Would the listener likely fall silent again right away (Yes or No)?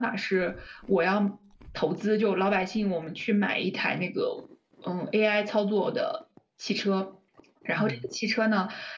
Yes